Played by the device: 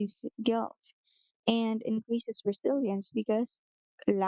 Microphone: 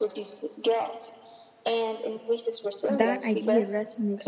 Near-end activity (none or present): present